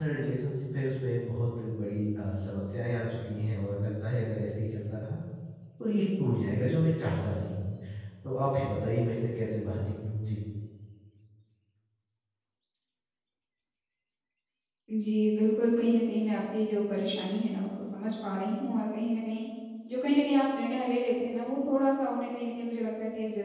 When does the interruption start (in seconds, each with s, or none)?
none